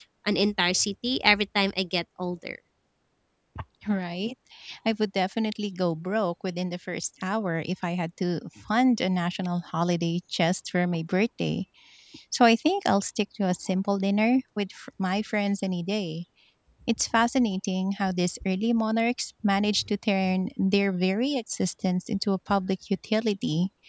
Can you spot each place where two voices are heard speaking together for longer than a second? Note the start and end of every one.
none

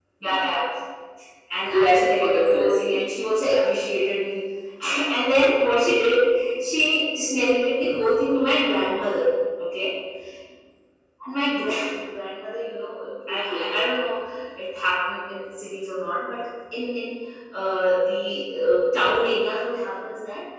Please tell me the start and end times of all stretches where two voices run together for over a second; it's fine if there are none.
1.7-3.0

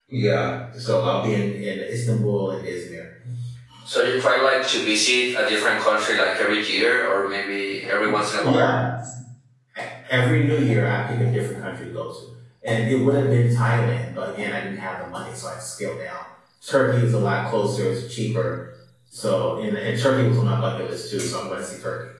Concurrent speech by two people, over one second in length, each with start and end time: none

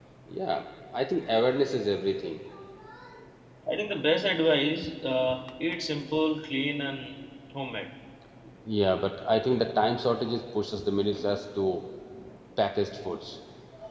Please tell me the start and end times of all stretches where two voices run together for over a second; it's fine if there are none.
none

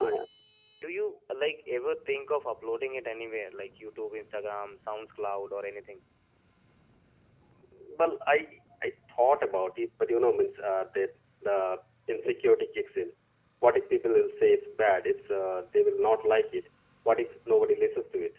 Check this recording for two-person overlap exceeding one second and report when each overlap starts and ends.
none

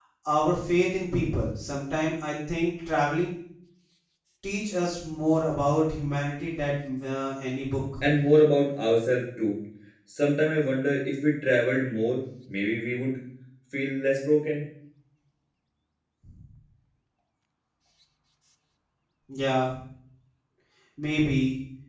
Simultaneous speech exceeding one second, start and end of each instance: none

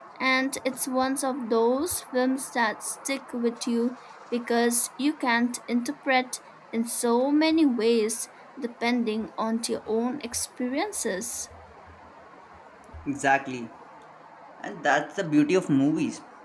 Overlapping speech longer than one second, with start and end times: none

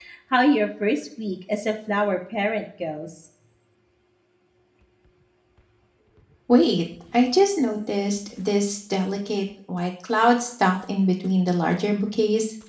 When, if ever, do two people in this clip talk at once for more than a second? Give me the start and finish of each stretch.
none

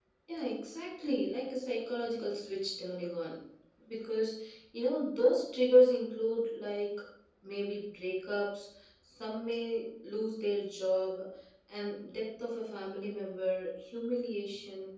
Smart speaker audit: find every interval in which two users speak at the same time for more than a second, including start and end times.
none

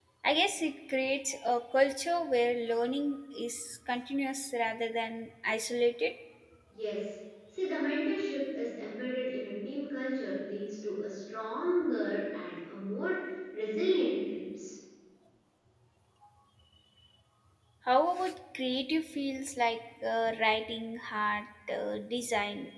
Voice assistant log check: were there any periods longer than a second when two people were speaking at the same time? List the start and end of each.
none

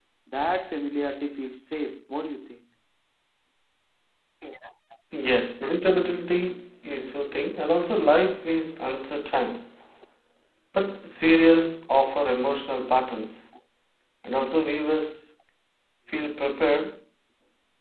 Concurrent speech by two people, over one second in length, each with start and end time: none

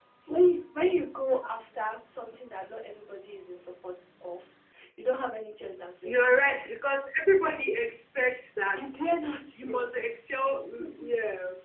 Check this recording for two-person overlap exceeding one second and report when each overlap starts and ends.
none

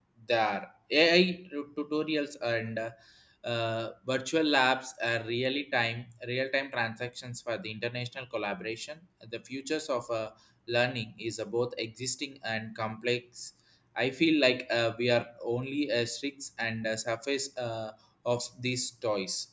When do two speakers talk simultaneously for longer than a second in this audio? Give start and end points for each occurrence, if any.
none

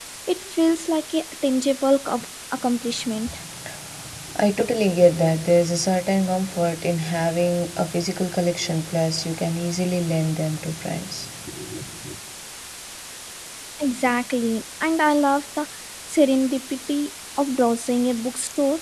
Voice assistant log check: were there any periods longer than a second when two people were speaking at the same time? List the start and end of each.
none

